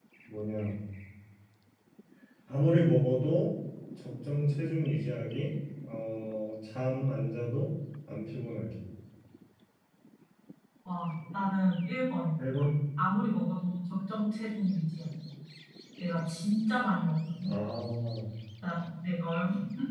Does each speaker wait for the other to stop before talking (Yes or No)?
Yes